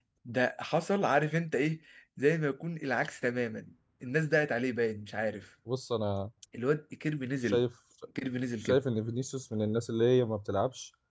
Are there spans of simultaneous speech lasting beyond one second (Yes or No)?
No